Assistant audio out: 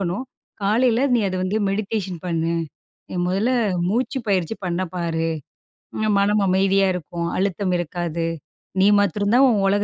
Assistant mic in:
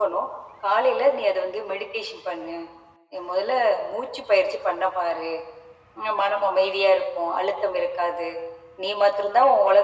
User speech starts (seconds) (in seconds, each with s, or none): none